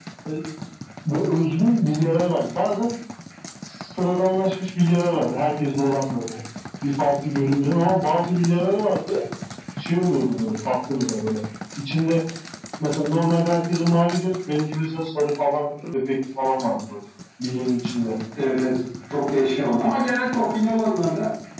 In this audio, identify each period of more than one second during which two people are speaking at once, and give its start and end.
none

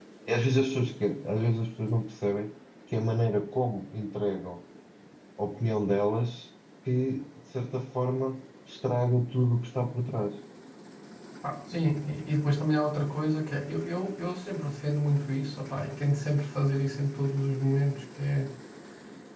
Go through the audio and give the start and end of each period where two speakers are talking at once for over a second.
none

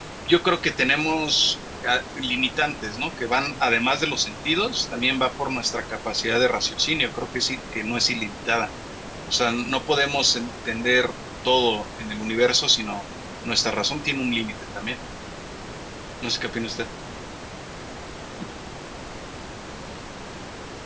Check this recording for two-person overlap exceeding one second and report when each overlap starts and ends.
none

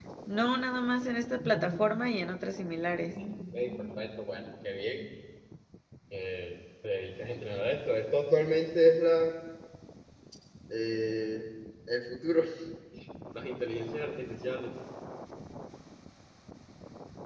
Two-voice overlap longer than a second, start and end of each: none

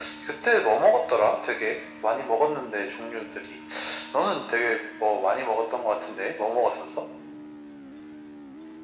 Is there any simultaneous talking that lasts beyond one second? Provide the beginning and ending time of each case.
none

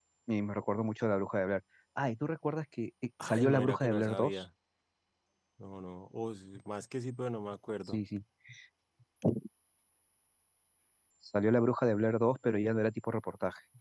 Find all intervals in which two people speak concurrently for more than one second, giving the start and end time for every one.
3.2-4.4

